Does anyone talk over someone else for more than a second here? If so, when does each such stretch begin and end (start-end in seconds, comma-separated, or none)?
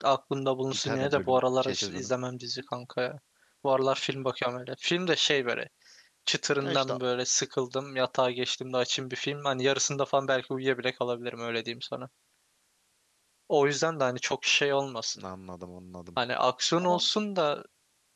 0.7-2.1